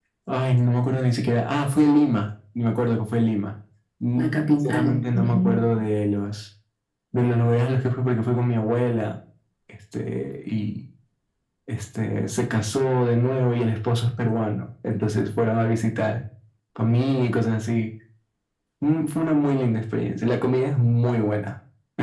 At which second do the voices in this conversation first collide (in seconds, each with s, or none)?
4.2 s